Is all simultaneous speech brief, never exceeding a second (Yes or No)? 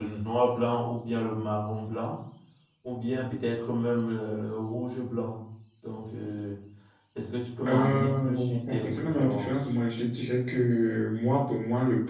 No